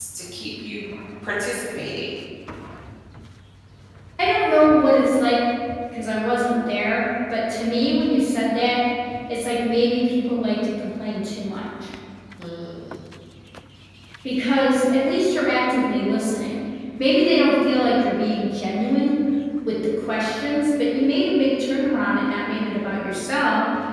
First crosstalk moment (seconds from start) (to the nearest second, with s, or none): none